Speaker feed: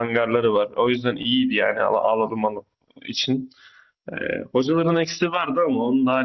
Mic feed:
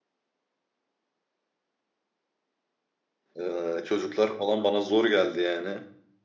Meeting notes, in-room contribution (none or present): present